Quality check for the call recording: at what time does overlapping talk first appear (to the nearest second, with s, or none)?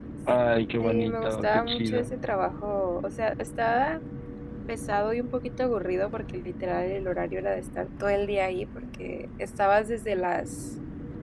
1 s